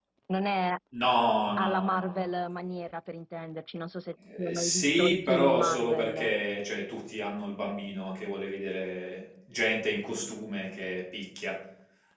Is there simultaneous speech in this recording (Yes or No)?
Yes